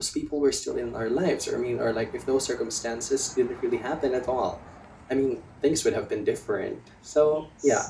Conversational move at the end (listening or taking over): listening